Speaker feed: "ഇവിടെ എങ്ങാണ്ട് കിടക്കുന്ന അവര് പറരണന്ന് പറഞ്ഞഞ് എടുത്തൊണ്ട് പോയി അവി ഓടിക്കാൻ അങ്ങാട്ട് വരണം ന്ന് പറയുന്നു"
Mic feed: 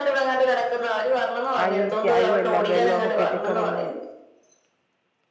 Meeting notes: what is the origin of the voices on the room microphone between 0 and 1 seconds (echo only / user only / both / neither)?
echo only